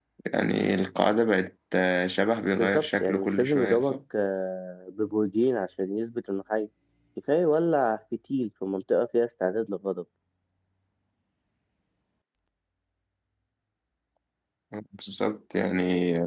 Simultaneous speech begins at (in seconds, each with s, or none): 2.5 s